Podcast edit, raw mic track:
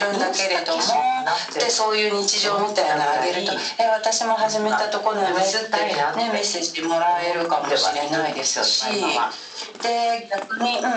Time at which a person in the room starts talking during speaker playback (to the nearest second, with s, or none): none